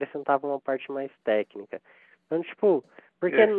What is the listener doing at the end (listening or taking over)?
listening